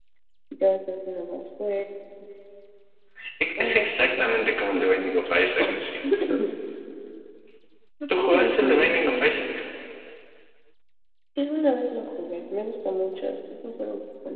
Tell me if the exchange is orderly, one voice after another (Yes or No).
No